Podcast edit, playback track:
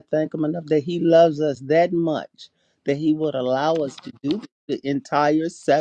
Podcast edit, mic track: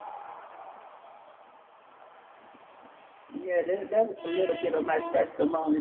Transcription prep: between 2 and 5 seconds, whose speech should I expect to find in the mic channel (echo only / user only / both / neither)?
user only